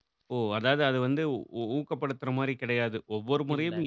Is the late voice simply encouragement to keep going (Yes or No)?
Yes